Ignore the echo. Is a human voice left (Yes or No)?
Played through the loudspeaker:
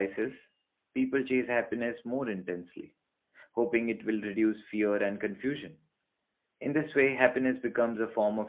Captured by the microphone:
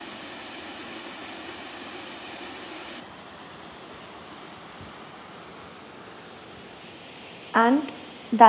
Yes